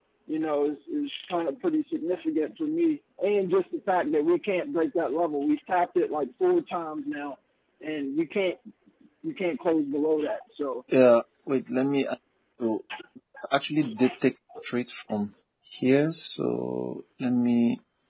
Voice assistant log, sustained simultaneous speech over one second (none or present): none